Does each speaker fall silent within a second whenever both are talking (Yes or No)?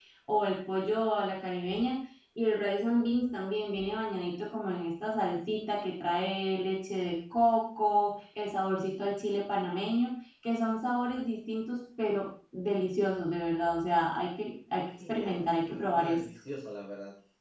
No